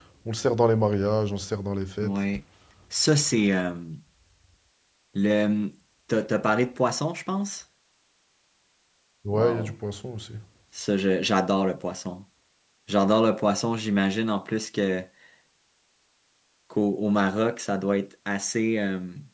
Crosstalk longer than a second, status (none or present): none